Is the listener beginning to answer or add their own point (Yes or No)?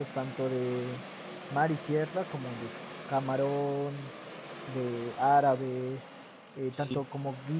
No